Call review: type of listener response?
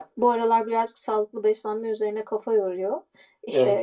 listening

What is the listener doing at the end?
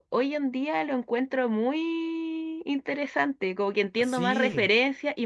listening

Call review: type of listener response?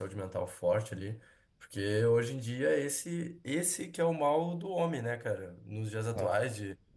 listening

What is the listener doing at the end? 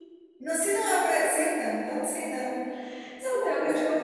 taking over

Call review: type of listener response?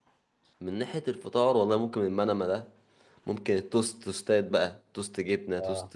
listening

